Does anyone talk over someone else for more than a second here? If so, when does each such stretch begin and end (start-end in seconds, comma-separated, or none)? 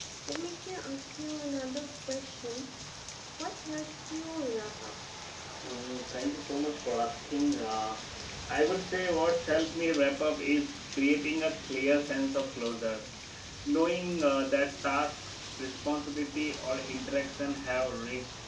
none